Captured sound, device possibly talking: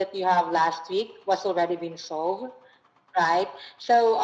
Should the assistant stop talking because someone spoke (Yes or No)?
No